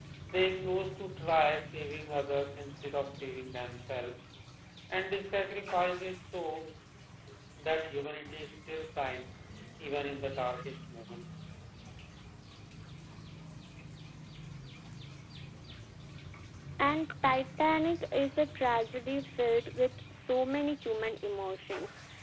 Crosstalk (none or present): none